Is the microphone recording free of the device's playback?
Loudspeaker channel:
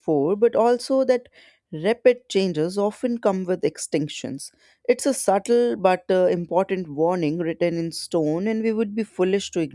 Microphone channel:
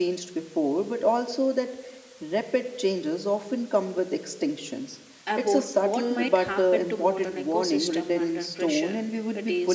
No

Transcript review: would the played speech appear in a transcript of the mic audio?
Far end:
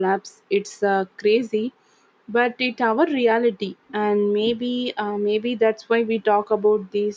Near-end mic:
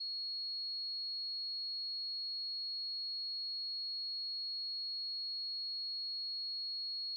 No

